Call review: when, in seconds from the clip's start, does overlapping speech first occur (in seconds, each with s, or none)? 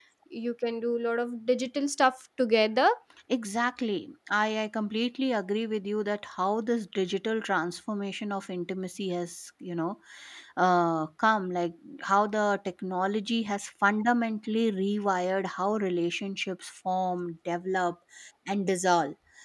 none